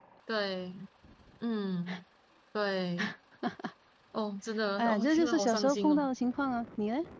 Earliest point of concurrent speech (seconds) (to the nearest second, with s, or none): 5 s